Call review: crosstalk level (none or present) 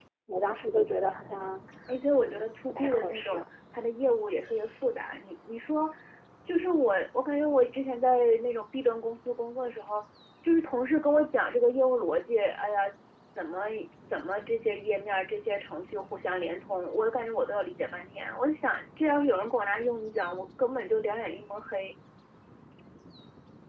present